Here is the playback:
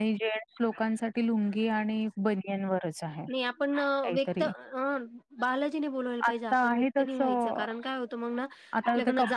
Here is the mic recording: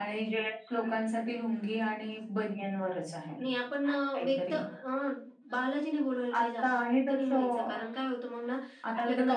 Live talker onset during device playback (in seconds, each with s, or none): none